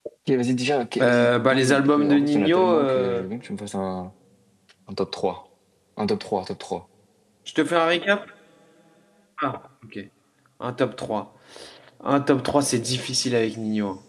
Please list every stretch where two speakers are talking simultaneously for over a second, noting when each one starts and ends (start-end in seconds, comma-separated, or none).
1.0-3.2